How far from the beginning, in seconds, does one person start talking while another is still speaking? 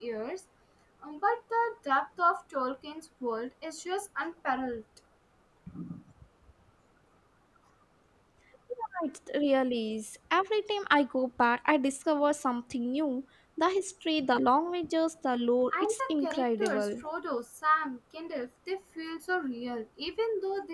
15.7 s

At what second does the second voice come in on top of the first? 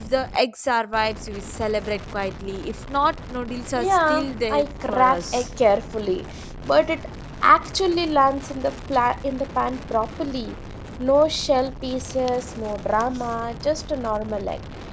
3.8 s

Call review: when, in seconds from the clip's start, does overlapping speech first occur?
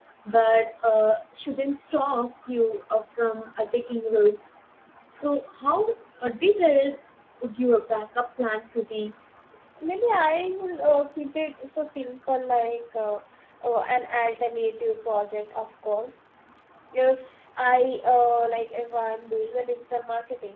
none

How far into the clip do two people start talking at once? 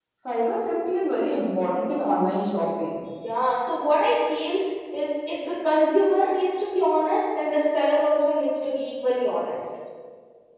none

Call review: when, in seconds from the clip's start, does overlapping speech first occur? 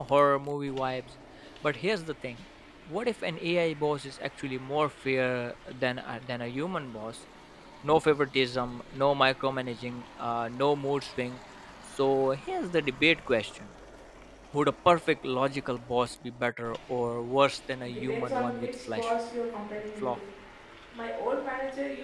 17.9 s

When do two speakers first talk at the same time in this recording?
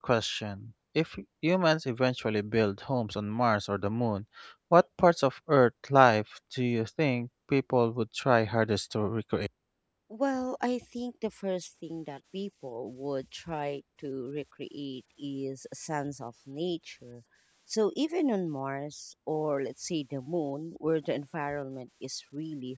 none

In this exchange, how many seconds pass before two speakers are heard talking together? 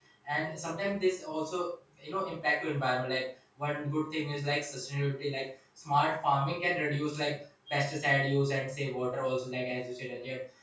none

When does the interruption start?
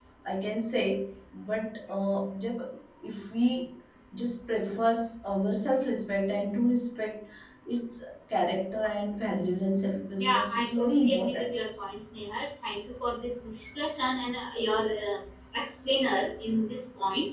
10.2 s

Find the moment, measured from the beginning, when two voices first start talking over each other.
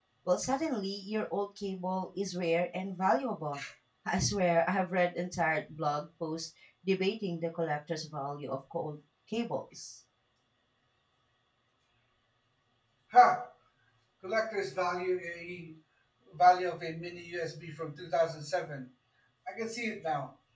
none

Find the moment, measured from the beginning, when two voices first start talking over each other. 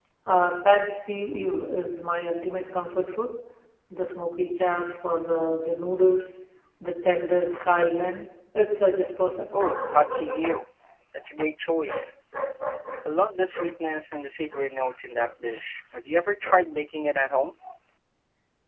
none

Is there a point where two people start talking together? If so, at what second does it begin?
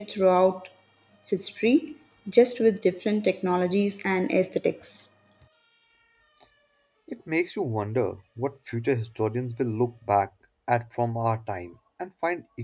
none

